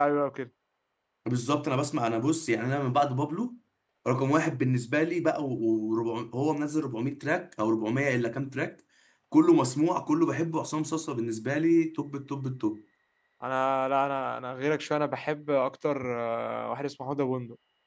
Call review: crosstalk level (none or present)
none